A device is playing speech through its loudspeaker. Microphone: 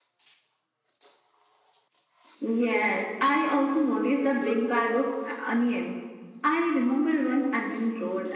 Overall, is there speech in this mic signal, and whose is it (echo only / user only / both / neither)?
echo only